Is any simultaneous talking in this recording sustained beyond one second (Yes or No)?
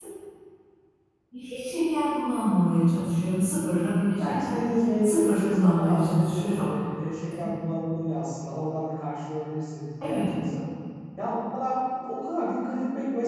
Yes